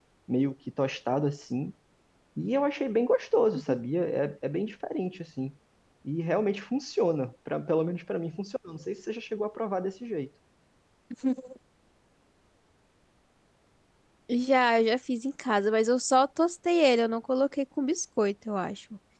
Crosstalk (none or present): none